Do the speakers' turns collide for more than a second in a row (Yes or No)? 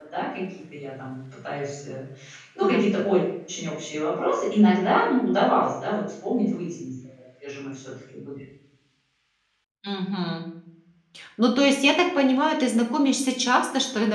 No